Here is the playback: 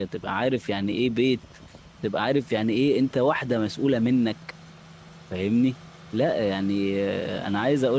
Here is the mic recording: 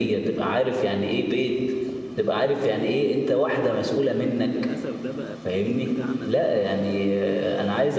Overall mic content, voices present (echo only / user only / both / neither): both